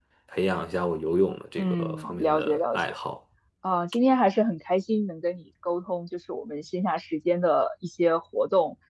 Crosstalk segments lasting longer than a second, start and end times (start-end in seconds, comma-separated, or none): 1.6-3.0